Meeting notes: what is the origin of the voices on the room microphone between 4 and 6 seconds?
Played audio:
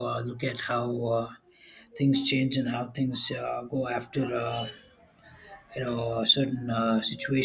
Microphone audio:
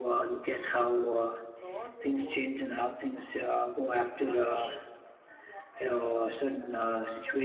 echo only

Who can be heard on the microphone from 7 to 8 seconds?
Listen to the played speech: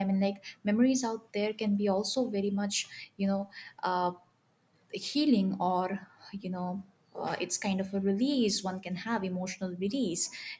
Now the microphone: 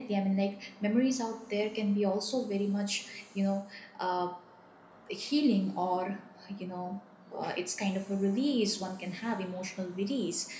echo only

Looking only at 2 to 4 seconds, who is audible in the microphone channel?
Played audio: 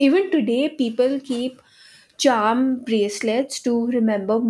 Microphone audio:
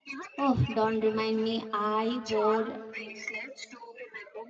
both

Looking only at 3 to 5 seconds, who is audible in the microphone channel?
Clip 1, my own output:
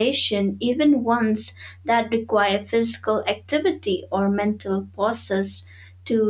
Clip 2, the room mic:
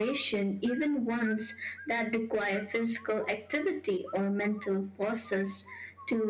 echo only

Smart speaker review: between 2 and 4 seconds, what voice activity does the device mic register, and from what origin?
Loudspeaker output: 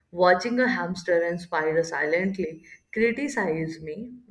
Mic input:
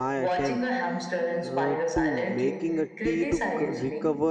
both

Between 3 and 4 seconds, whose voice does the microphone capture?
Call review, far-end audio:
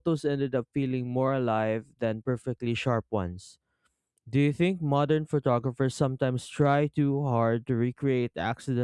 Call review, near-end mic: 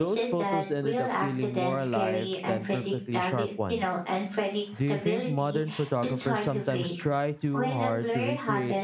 both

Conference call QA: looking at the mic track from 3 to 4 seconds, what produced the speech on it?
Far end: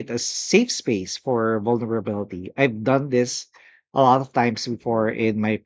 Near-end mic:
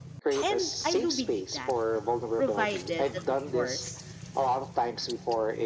both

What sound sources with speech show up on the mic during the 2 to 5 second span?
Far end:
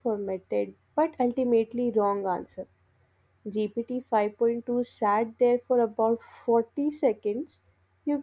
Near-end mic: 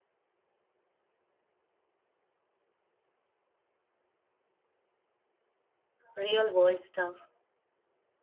neither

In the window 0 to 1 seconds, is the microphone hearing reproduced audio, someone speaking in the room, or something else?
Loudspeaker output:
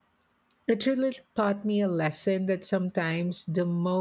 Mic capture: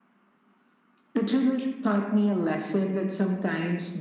neither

